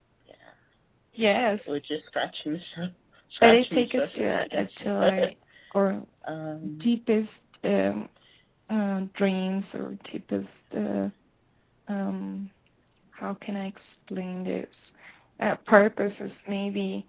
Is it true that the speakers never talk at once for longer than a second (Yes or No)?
No